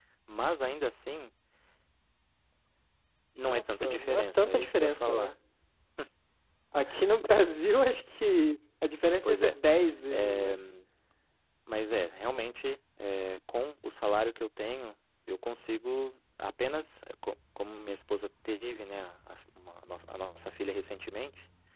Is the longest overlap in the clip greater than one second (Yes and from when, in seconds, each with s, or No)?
Yes, from 3.4 s